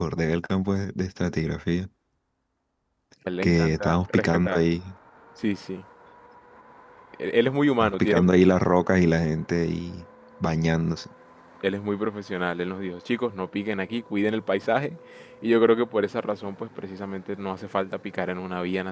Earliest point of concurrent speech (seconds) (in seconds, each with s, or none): 3.4 s